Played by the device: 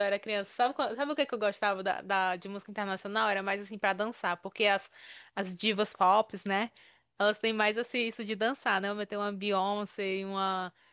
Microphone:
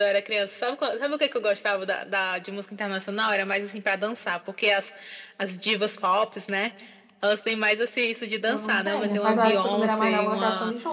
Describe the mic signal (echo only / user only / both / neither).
both